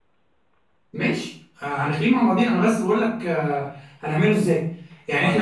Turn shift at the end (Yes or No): No